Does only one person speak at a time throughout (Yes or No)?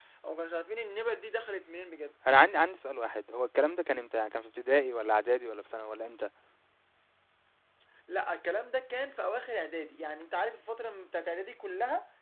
Yes